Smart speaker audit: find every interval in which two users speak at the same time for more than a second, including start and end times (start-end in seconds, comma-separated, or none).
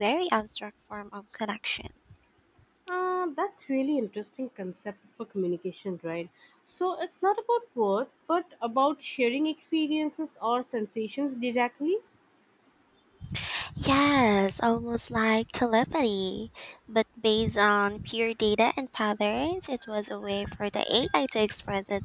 none